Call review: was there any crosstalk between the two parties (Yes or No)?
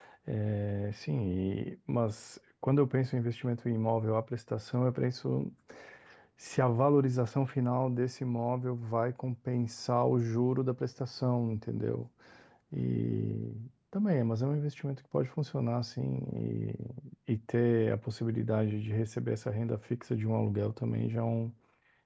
No